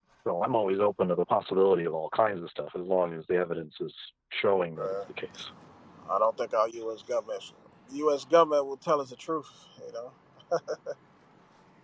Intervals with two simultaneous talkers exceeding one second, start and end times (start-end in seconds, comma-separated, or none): none